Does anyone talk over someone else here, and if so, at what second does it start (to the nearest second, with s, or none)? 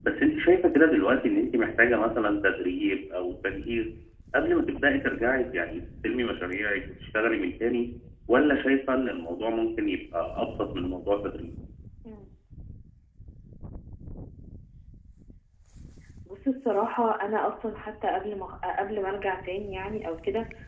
none